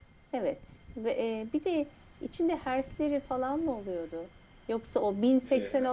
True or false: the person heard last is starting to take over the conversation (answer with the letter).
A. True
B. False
B